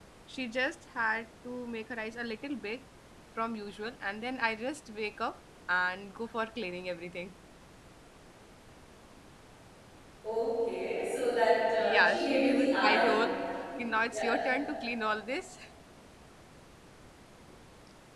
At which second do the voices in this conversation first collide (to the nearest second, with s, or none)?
12 s